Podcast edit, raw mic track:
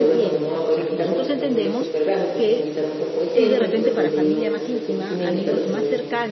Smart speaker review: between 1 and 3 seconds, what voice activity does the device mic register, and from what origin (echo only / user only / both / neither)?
both